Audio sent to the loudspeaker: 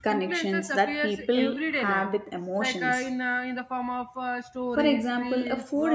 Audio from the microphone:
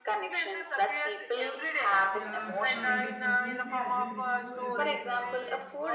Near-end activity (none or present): present